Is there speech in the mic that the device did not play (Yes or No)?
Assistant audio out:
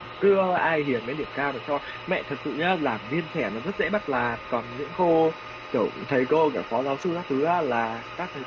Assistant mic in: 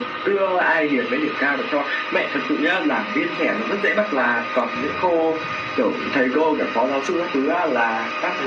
No